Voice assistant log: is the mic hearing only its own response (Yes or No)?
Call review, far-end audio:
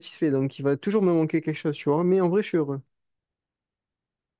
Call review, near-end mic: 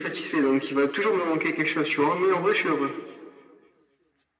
Yes